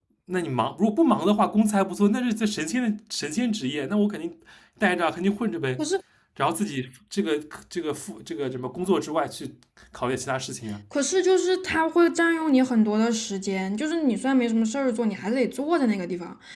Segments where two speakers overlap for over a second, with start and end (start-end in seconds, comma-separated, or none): none